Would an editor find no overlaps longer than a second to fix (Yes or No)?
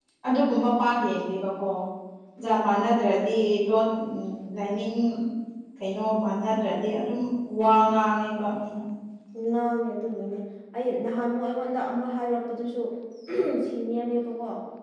Yes